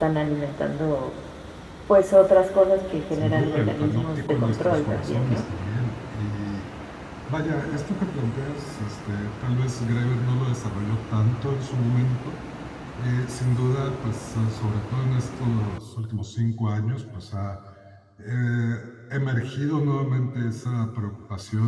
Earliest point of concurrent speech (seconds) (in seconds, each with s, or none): 3.1 s